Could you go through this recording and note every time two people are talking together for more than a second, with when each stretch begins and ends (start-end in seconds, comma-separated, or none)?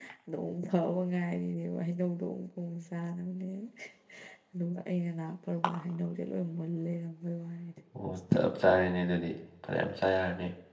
none